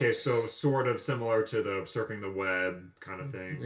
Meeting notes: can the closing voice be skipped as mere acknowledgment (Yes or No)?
No